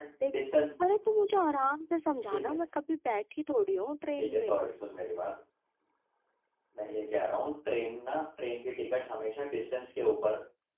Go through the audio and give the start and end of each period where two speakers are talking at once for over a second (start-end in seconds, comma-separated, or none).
none